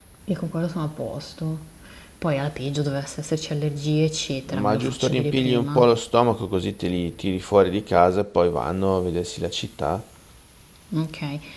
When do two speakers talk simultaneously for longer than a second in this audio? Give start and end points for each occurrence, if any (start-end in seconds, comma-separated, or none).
4.5-5.8